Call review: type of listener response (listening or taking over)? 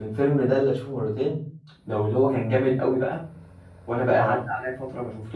listening